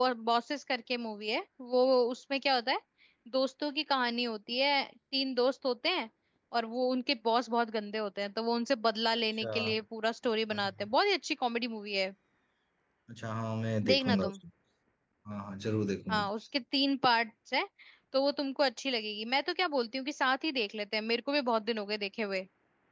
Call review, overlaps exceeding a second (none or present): none